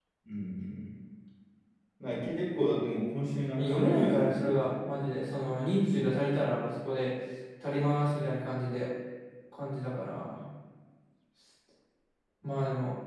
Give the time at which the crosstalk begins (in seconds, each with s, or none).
3.6 s